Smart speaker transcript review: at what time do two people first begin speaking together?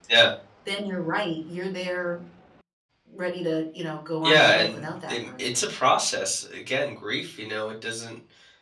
4 s

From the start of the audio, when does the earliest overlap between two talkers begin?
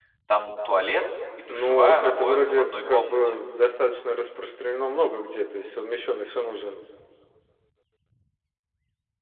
1 s

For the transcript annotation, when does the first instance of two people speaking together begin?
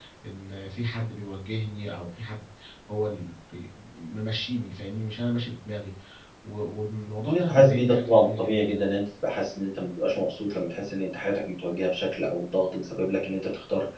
7 s

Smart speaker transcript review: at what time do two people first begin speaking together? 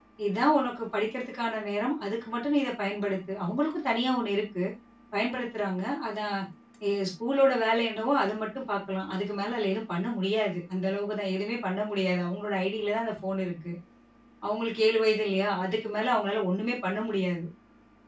none

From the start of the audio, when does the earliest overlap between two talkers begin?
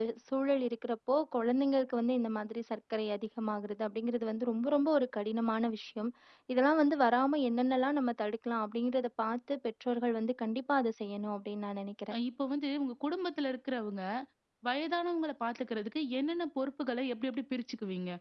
none

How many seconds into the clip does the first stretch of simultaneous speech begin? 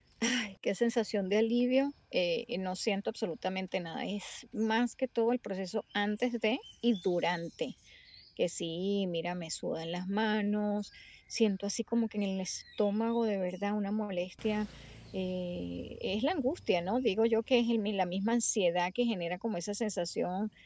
none

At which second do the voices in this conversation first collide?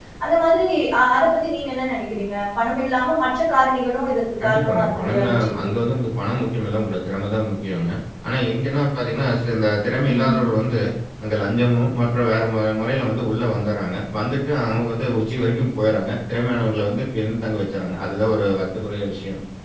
4 s

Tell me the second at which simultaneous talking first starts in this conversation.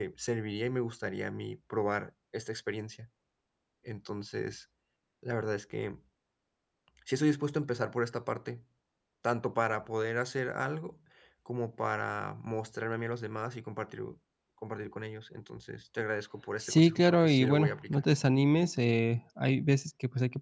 17 s

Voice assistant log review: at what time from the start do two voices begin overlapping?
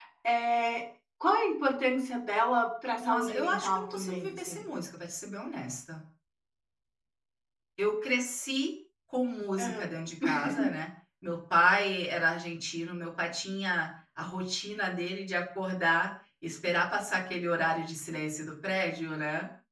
3 s

